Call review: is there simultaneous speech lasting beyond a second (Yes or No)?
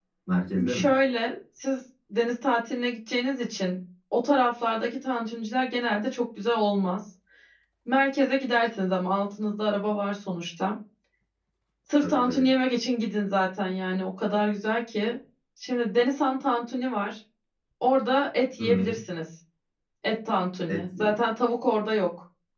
No